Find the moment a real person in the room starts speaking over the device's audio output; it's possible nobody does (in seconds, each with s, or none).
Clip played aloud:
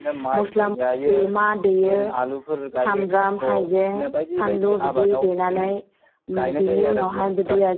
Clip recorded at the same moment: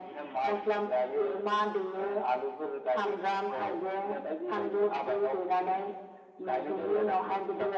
none